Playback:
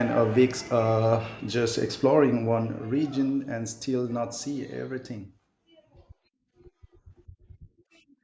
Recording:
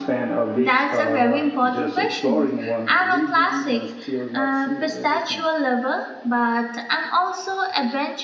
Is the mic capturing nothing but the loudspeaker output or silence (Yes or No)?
No